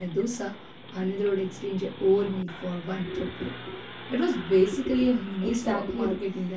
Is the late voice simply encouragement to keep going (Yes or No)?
No